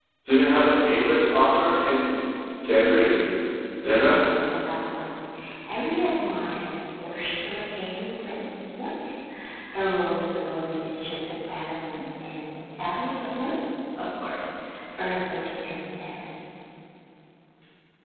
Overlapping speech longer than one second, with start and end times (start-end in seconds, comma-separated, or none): none